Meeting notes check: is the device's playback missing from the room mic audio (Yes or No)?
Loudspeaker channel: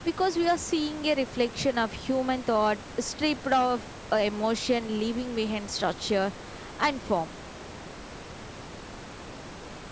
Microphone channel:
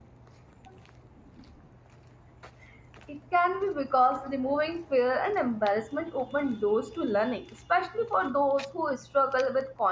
Yes